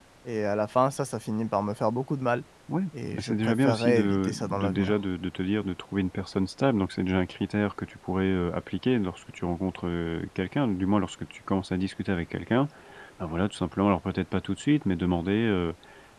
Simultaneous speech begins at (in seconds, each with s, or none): 3.1 s